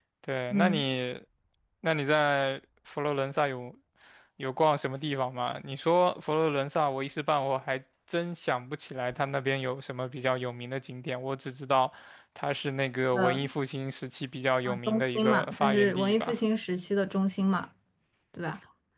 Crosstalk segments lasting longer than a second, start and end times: 14.9-16.4

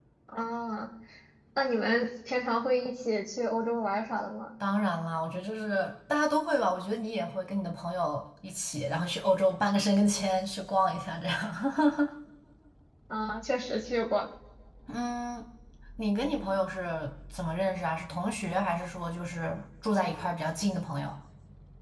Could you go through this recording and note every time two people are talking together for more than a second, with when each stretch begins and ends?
none

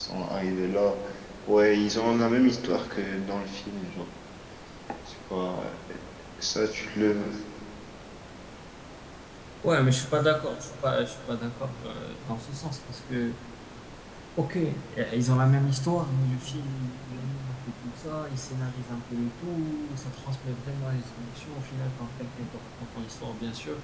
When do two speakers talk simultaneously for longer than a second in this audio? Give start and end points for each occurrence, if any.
none

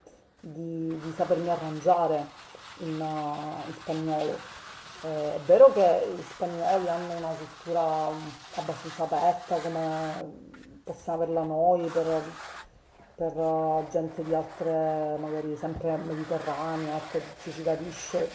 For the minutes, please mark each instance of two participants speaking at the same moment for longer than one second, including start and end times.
none

